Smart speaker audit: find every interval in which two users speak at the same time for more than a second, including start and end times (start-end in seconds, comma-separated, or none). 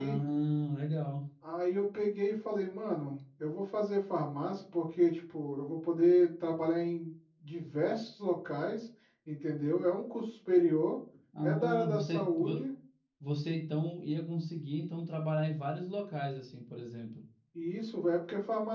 11.4-12.7